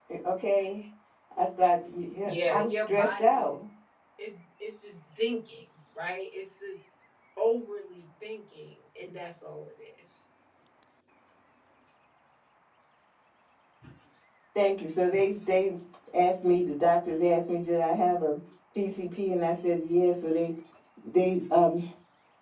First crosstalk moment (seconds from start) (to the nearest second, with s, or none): 2 s